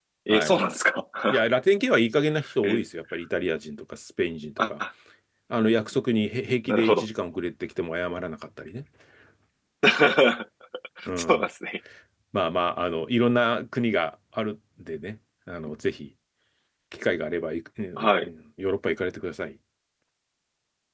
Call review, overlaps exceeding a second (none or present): none